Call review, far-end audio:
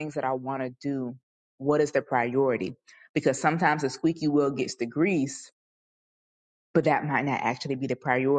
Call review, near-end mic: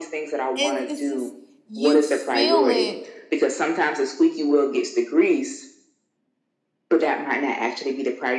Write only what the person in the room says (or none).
it's, it's just you feel it